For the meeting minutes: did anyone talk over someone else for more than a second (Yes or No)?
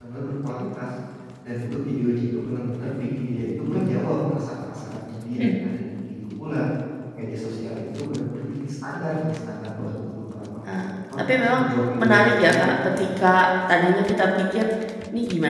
Yes